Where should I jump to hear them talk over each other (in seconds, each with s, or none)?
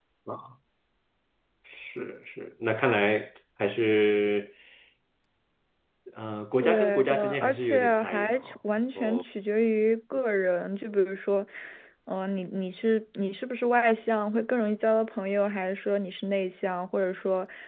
6.6 s